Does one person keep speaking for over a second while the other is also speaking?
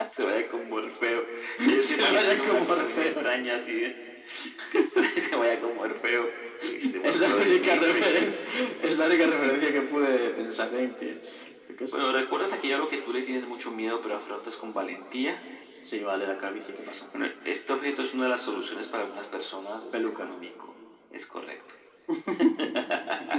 Yes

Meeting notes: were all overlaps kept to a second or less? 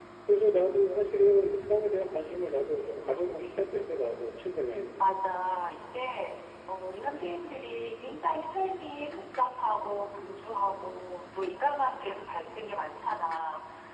Yes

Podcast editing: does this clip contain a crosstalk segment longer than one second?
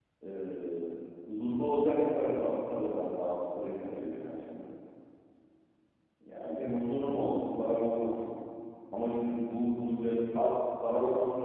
No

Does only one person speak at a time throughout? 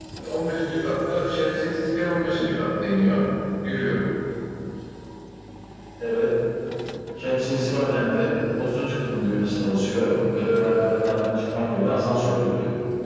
Yes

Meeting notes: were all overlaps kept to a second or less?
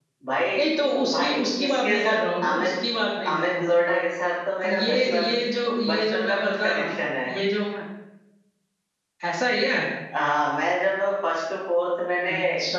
No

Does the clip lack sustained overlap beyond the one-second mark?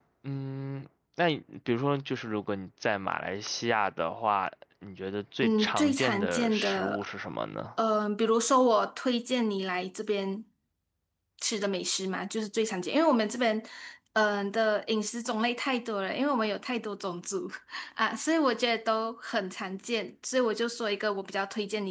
No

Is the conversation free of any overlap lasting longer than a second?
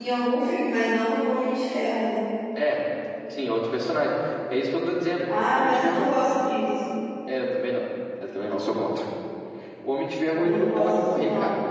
No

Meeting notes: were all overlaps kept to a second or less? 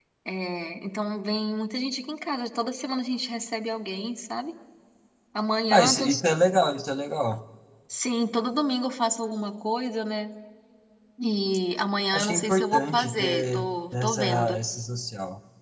No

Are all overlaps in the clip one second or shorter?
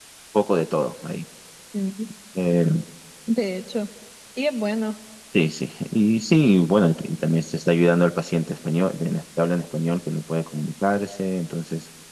Yes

